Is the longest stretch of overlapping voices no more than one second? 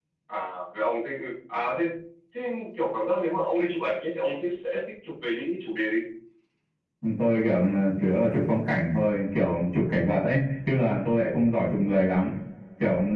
Yes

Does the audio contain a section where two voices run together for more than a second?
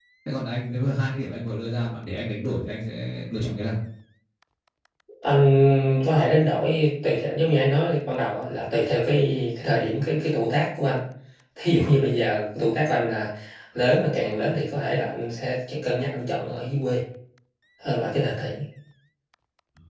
No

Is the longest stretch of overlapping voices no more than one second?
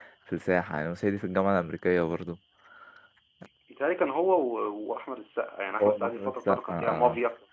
No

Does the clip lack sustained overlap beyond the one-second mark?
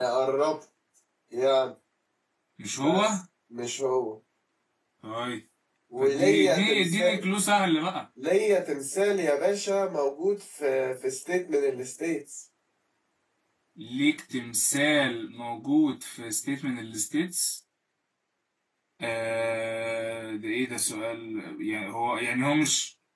No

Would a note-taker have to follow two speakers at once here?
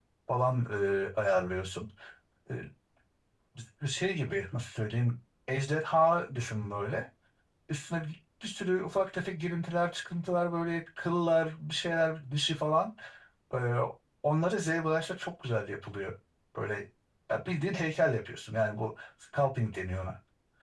No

